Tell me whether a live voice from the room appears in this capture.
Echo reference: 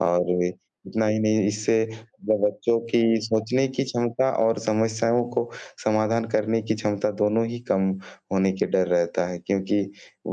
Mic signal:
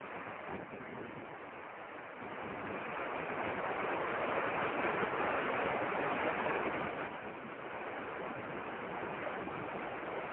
No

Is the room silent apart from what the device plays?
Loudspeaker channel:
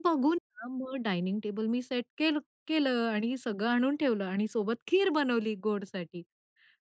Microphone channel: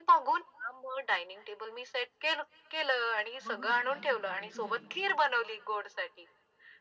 No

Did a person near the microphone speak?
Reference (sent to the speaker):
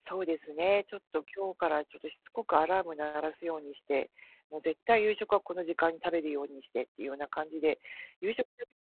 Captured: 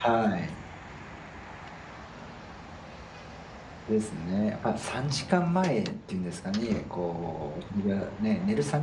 Yes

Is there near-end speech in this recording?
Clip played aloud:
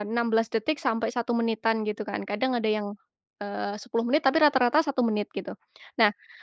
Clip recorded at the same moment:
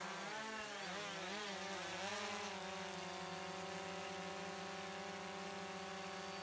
No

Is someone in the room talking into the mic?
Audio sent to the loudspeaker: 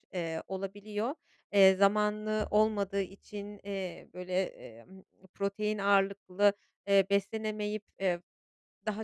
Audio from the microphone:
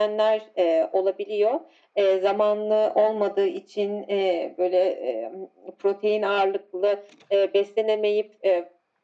No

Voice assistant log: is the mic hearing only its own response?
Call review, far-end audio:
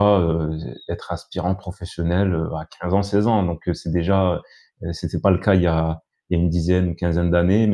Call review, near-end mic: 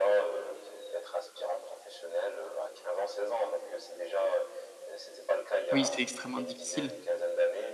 No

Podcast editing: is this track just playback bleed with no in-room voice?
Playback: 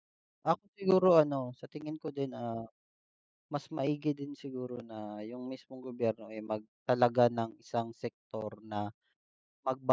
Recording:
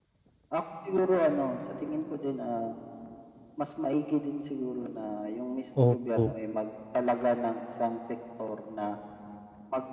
No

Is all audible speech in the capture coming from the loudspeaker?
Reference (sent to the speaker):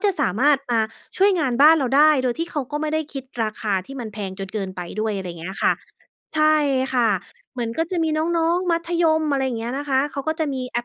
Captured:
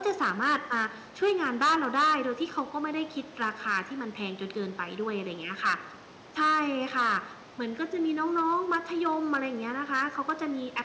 Yes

